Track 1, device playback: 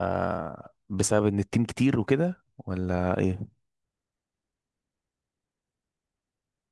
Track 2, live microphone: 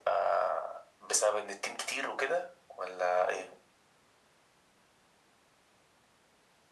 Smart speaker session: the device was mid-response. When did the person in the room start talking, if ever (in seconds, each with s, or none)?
none